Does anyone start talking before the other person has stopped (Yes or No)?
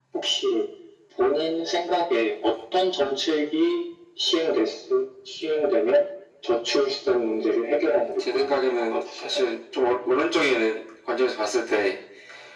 Yes